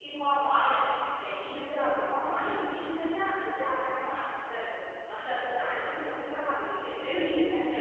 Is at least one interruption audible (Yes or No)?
No